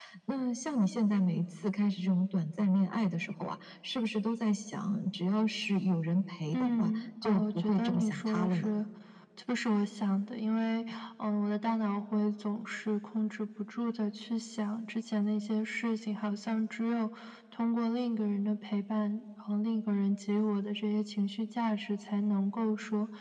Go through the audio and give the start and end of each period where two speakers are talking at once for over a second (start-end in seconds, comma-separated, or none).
6.5-8.7